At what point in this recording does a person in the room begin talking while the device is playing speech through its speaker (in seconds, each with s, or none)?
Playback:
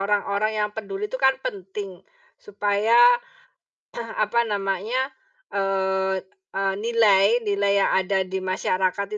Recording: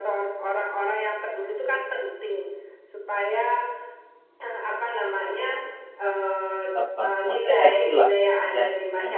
6.7 s